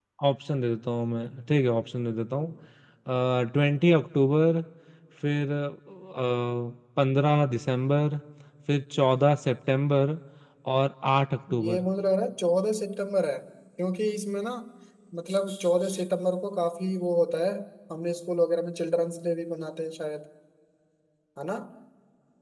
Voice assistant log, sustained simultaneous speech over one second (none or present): none